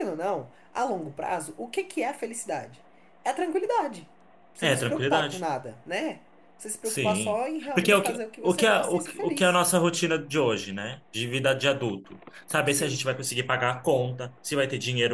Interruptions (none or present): present